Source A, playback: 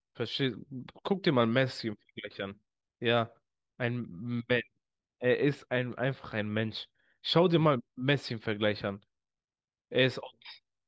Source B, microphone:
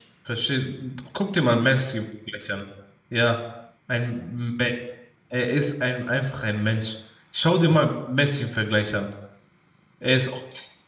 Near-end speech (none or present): none